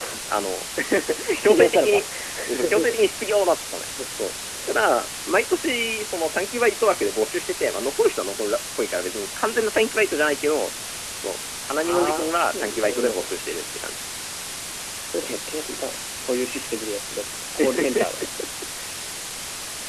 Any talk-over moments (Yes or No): Yes